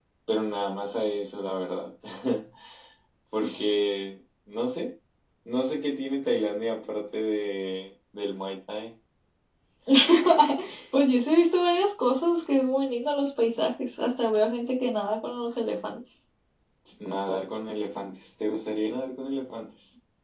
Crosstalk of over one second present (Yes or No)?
No